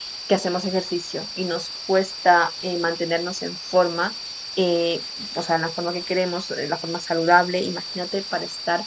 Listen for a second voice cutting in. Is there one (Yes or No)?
No